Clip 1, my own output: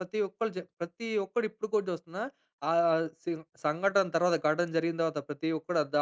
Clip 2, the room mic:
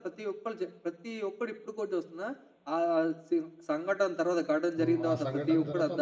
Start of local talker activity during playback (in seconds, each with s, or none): 4.8 s